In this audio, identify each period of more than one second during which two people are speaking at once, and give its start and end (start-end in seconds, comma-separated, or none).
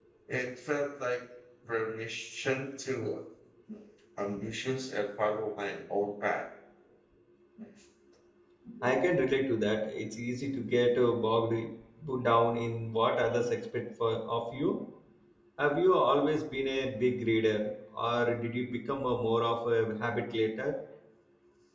none